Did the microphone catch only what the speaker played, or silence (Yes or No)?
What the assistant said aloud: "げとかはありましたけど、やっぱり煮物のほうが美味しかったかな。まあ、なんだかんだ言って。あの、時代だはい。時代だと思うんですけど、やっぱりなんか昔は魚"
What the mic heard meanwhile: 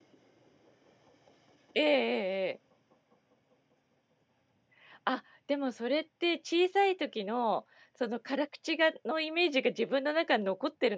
No